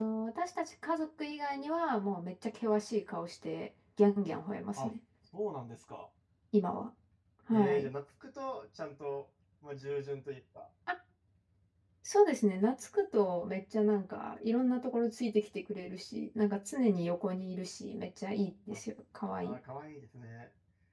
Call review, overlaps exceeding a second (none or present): none